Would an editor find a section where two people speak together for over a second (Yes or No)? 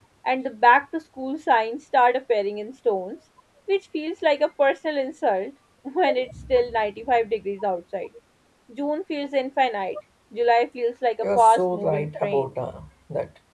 Yes